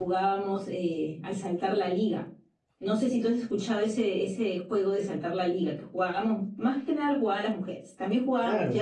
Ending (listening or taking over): taking over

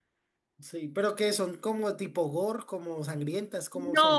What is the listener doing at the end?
taking over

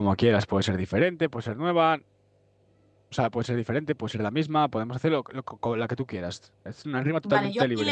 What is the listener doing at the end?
taking over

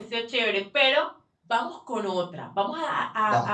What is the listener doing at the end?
listening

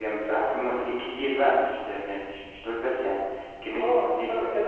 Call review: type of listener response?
taking over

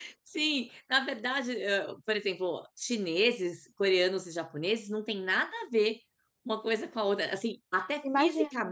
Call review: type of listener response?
listening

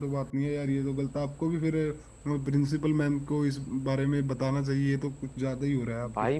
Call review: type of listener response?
taking over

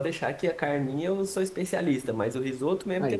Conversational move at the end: listening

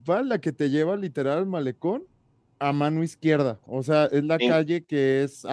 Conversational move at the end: listening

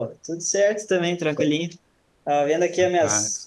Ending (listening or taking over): listening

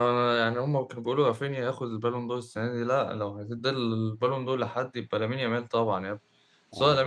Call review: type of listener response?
listening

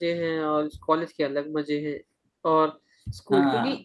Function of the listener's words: listening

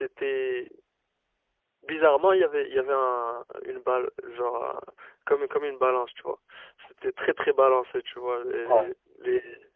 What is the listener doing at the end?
listening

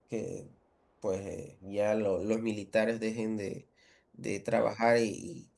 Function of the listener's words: listening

